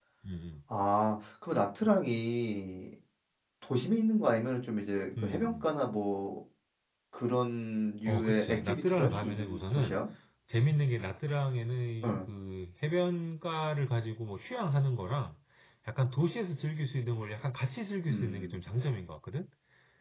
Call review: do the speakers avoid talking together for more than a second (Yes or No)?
No